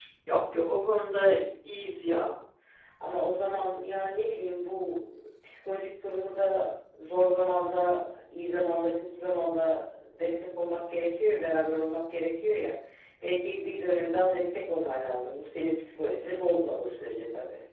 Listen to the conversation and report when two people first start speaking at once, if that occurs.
none

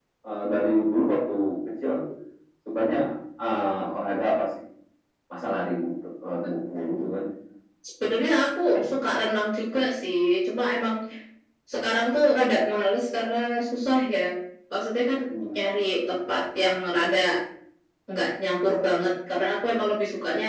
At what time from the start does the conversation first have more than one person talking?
none

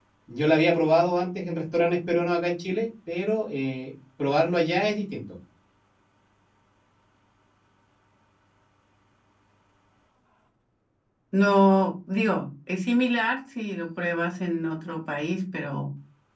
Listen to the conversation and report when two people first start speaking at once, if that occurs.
none

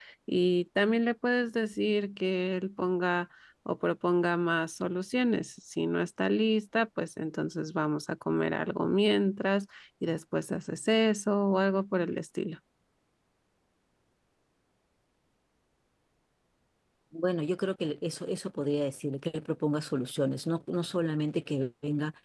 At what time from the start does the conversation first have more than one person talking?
none

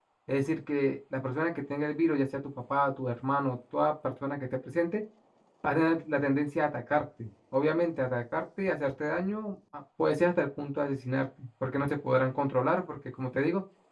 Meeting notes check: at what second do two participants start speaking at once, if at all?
none

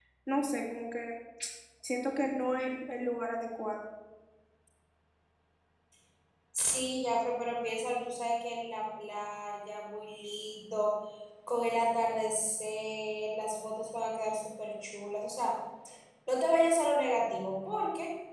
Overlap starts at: none

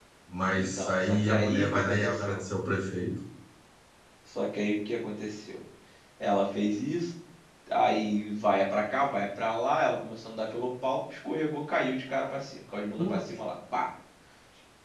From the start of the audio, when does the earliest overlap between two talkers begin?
0.5 s

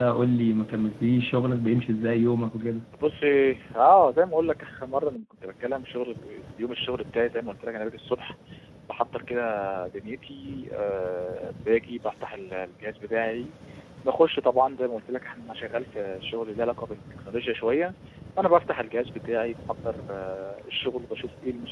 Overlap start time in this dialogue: none

